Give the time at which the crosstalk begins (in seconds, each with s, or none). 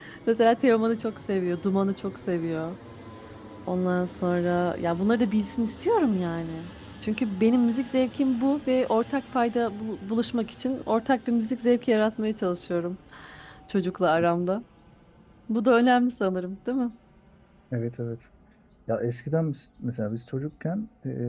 none